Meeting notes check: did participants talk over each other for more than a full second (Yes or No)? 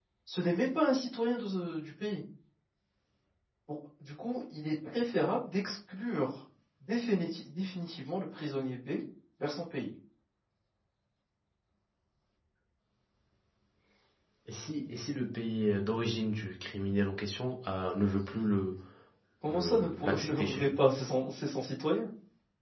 Yes